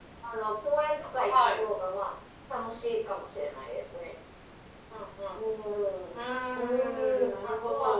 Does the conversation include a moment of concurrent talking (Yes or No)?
Yes